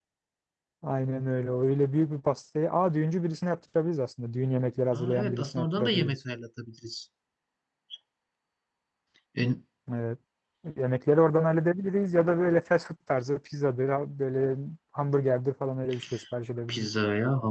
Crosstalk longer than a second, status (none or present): present